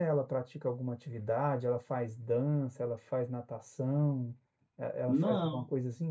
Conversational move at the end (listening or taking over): listening